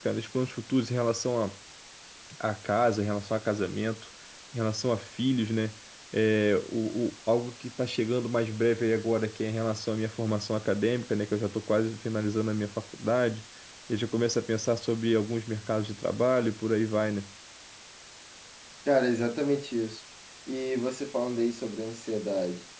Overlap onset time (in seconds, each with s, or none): none